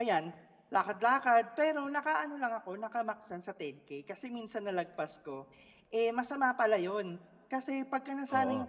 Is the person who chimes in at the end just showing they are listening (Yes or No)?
Yes